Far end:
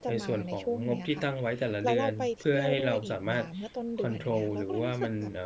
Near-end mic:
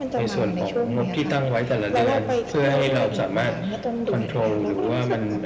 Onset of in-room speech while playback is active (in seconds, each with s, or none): none